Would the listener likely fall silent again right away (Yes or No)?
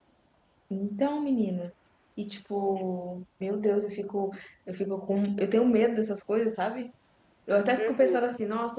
Yes